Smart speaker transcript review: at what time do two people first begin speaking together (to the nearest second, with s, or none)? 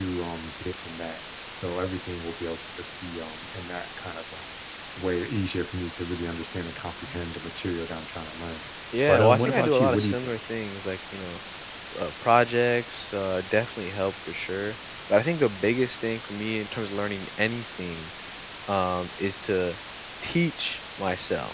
9 s